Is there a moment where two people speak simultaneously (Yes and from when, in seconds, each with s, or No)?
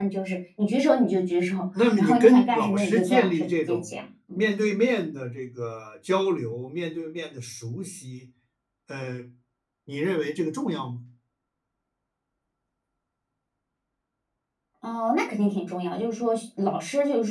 Yes, from 1.7 s